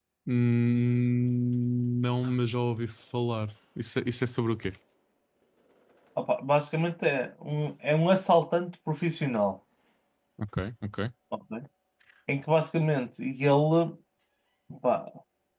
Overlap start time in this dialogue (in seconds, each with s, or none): none